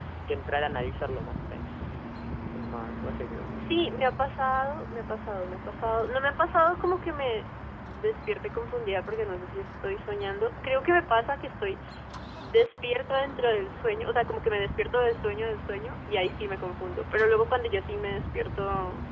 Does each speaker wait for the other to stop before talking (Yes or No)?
Yes